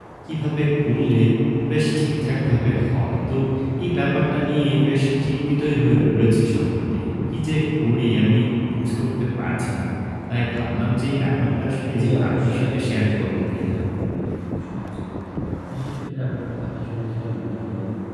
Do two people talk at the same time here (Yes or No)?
Yes